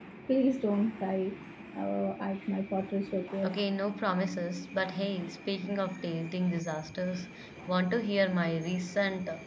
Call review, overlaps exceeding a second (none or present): none